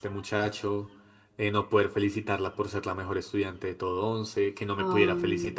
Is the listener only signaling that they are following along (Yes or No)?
Yes